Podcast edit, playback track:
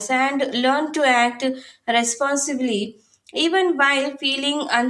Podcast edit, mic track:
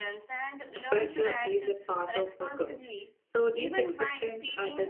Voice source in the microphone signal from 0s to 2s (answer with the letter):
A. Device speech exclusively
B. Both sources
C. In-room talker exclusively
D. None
B